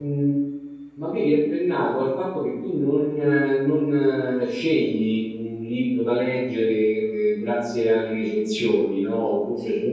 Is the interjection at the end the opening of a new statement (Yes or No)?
No